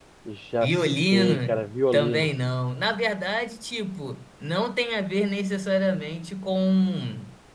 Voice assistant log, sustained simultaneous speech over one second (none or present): present